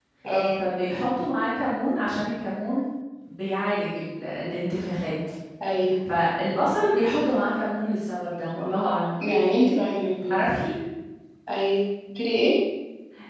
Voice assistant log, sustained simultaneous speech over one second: none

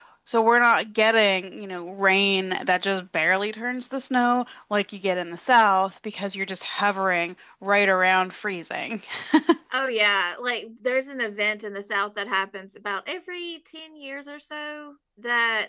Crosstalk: none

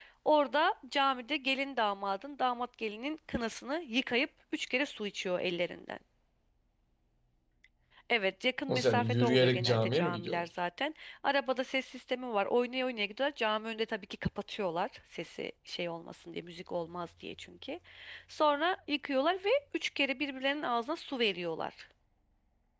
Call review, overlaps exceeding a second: present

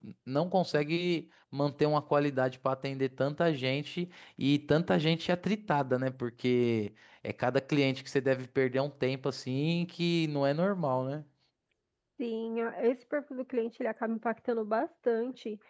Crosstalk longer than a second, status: none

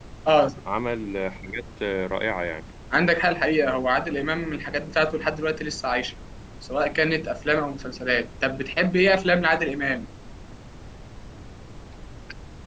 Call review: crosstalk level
none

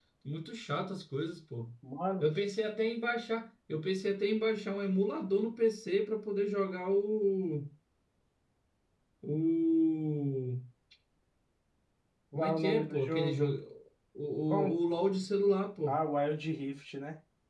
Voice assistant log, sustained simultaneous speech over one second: present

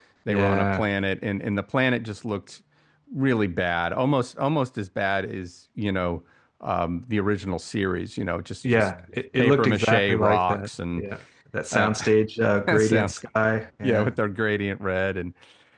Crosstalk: present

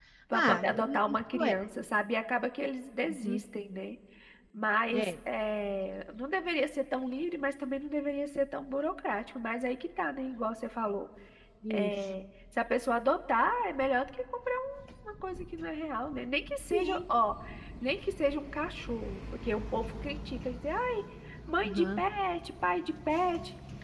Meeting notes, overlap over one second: present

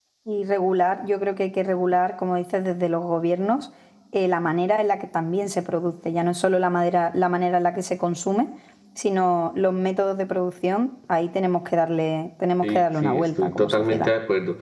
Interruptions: present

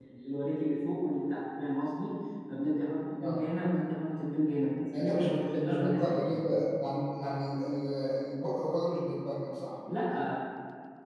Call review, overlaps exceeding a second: present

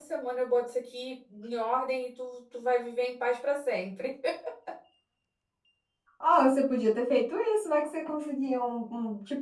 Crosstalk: none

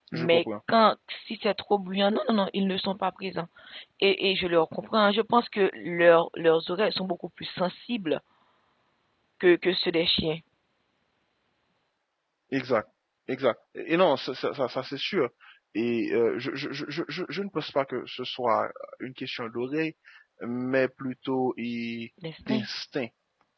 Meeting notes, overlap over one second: none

